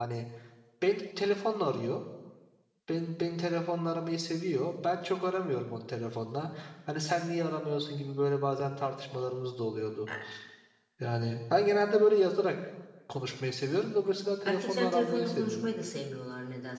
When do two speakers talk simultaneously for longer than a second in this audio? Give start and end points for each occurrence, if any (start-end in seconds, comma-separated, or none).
14.4-15.7